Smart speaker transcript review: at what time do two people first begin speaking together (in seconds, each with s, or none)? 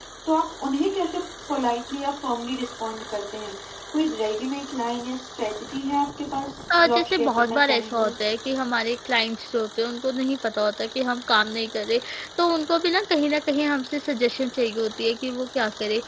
6.7 s